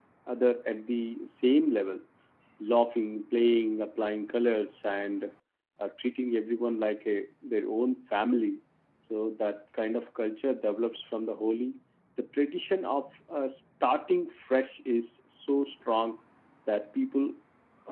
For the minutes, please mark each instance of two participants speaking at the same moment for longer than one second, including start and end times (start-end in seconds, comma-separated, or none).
none